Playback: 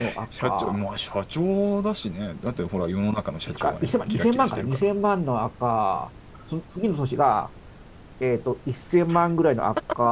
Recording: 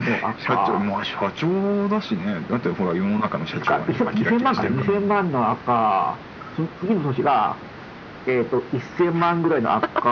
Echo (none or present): present